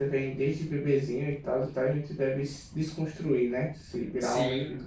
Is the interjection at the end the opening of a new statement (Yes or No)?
Yes